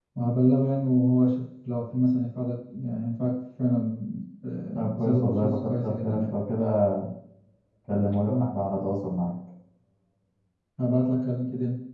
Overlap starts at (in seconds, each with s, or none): 4.7 s